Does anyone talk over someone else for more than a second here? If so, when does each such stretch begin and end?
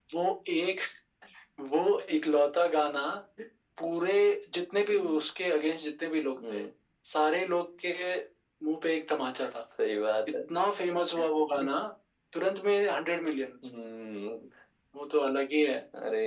none

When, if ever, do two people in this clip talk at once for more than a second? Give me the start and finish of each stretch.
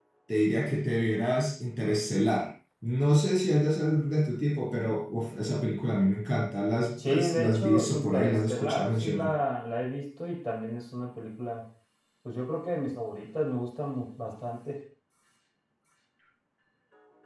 7.1-9.3

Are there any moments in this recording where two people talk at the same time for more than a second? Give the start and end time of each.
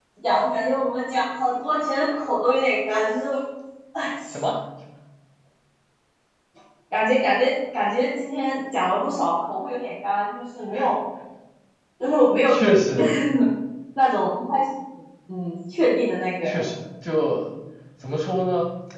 none

